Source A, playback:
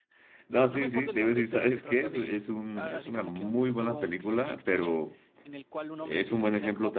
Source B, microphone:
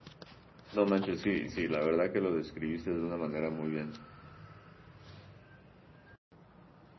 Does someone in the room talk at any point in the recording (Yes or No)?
Yes